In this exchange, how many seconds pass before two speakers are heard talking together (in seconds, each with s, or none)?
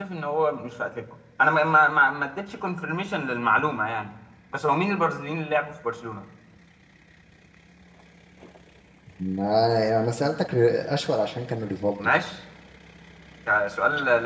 none